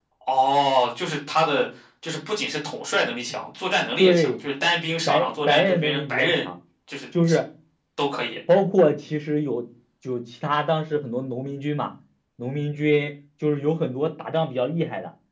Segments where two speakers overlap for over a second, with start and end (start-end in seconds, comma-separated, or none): 5.1-6.5